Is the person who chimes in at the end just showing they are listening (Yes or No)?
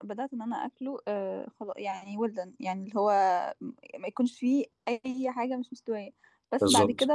Yes